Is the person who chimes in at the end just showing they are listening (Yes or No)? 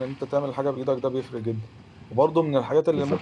Yes